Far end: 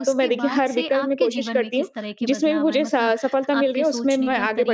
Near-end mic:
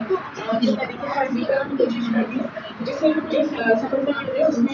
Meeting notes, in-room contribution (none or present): present